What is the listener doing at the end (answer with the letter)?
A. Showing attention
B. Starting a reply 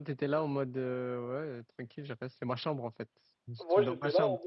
B